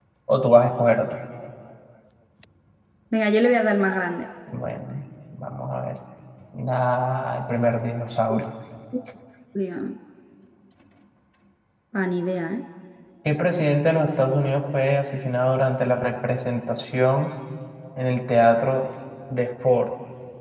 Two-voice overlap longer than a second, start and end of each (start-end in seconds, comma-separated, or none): none